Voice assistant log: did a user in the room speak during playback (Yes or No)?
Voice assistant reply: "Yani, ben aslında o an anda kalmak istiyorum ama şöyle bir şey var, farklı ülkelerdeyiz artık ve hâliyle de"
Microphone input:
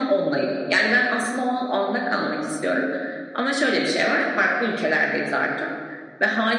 No